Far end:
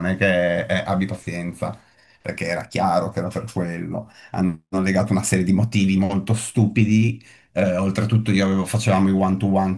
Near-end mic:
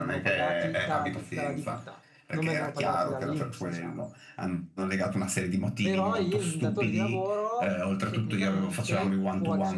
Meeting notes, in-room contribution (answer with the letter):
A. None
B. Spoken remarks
B